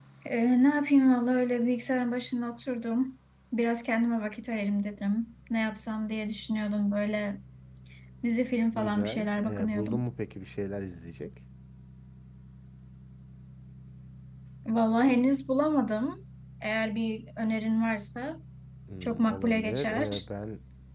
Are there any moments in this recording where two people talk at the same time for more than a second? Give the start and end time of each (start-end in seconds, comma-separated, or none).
8.7-10.1, 19.0-20.2